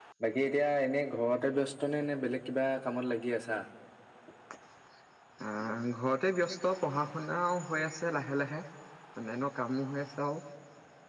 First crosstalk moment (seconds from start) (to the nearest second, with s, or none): none